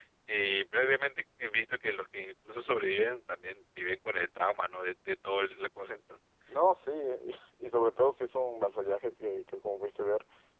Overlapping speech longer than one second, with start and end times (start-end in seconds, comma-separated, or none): none